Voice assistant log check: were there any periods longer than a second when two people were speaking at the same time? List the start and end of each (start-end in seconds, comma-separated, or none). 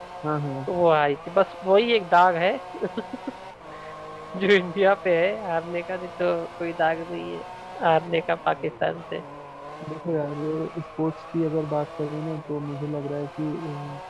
none